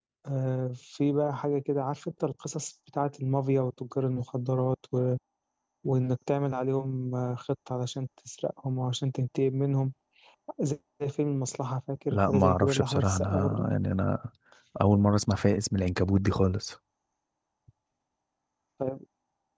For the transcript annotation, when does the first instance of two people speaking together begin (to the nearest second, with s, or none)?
12 s